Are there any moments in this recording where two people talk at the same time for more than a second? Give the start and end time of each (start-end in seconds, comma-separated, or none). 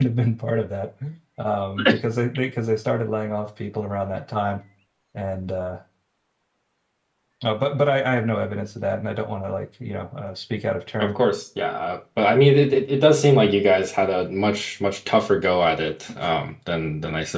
none